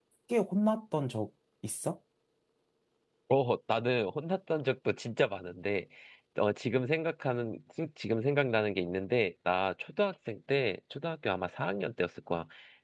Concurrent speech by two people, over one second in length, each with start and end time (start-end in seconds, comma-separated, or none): none